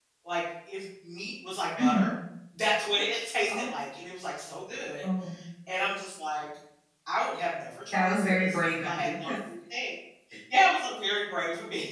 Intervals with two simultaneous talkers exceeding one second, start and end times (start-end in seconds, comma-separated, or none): 7.9-9.3